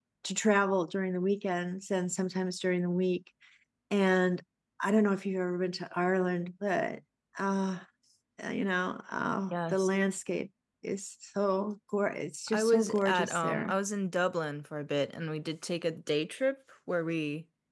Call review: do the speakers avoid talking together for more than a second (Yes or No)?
No